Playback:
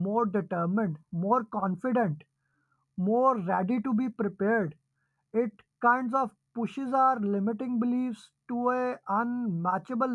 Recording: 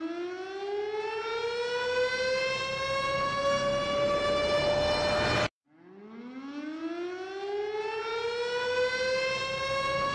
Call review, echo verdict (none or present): none